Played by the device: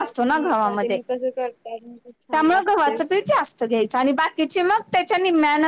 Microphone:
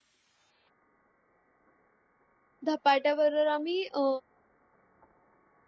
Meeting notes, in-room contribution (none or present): present